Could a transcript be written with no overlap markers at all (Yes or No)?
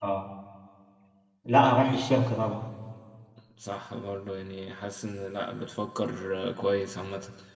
Yes